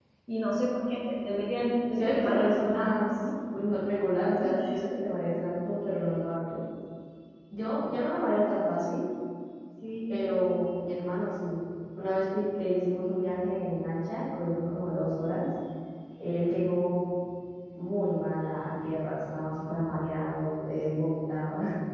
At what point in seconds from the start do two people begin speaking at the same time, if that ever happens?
2 s

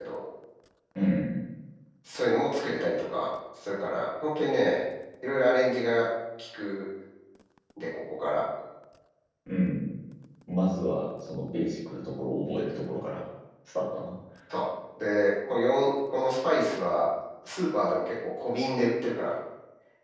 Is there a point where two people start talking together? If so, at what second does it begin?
none

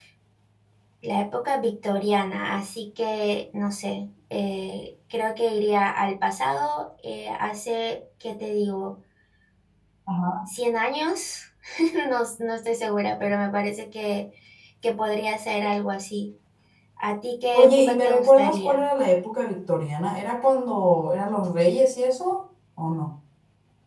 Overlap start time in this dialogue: 18 s

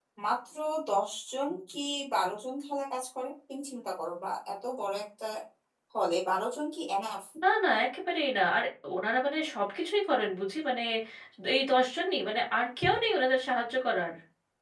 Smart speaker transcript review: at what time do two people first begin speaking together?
none

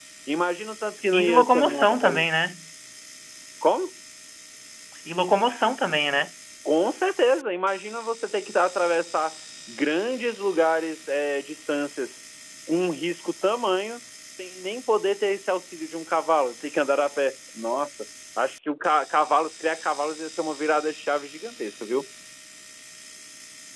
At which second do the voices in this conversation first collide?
1 s

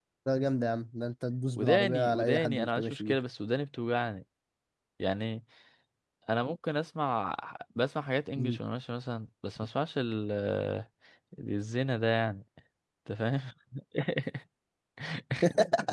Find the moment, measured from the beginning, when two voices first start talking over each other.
2 s

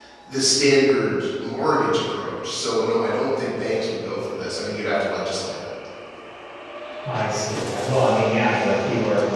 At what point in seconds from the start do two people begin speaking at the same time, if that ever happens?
none

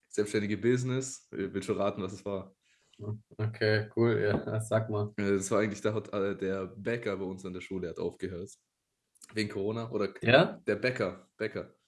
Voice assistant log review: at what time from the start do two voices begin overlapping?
none

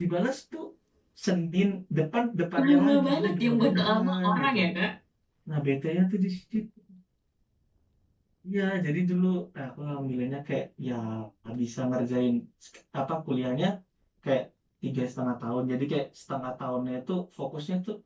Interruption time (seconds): 3 s

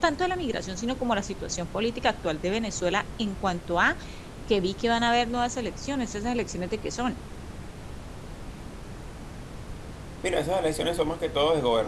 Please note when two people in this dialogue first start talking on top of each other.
none

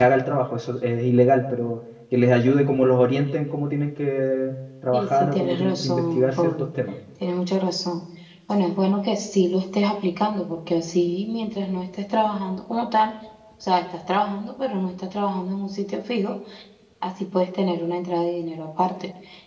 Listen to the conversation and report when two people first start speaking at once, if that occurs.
5 s

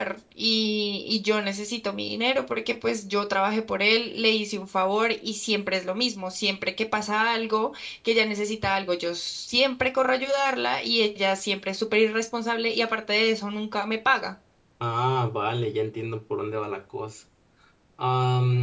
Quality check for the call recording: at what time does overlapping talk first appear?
none

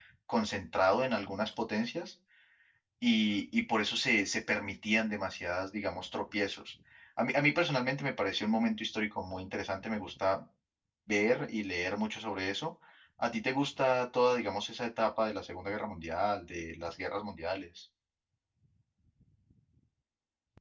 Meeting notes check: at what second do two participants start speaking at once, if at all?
none

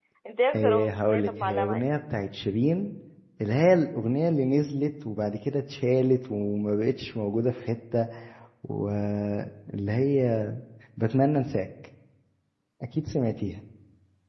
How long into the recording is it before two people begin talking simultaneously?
1 s

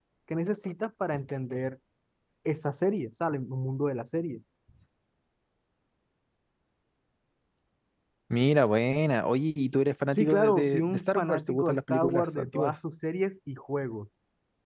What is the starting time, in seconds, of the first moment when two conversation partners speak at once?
10 s

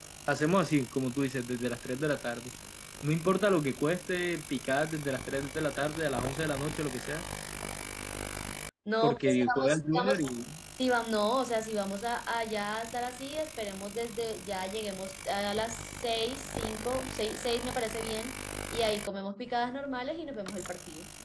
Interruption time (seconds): 9 s

